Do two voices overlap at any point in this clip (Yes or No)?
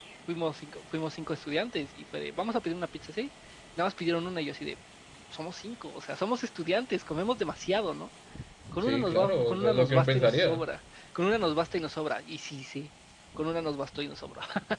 Yes